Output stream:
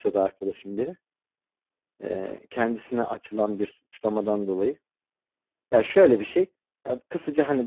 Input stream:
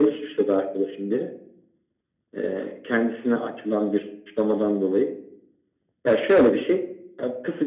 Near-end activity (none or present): none